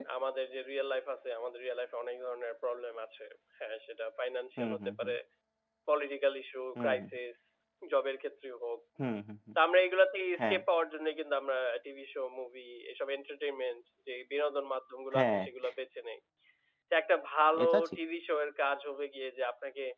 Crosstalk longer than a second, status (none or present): none